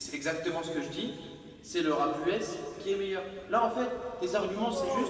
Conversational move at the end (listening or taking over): taking over